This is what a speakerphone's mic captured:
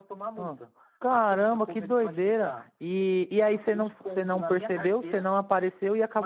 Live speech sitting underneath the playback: No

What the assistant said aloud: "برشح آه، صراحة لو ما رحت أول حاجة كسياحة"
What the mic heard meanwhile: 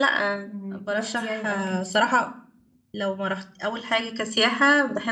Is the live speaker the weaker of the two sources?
Yes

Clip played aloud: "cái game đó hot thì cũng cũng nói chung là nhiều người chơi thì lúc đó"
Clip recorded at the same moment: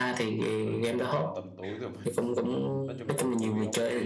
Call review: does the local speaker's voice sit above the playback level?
No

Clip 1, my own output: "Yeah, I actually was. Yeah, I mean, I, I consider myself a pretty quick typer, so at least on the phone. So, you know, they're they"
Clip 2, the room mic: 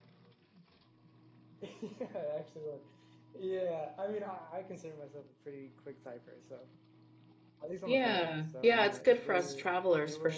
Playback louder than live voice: No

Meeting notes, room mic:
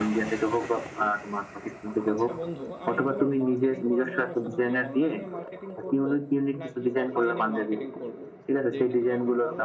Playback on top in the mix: Yes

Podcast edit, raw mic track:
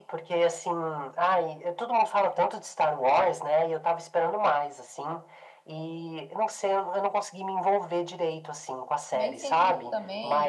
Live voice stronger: No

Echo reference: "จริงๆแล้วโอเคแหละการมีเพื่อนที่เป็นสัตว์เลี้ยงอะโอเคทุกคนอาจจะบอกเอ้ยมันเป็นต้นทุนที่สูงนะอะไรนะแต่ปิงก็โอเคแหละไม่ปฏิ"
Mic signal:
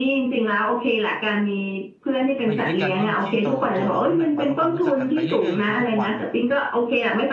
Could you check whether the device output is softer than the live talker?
No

